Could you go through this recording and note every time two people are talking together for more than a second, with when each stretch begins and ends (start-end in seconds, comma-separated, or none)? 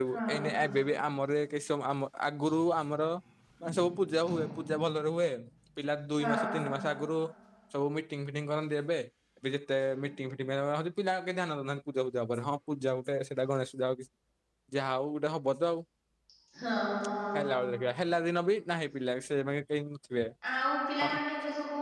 none